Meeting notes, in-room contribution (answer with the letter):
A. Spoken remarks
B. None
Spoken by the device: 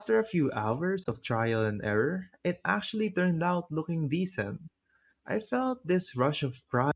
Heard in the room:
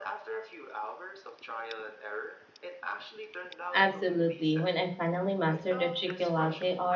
A